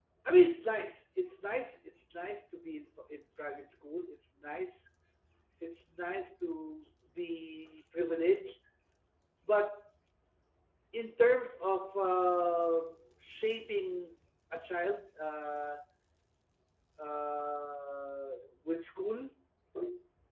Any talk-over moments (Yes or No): No